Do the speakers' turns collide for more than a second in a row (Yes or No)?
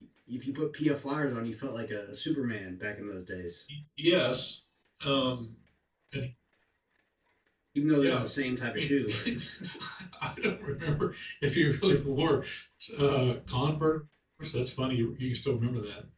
No